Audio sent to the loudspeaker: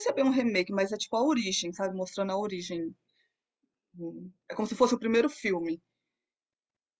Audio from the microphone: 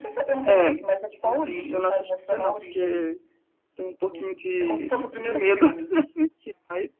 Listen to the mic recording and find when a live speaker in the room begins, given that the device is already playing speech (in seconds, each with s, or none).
0.4 s